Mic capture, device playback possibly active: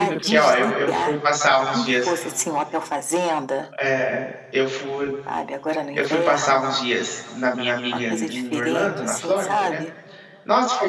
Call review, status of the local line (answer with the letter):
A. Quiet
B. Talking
B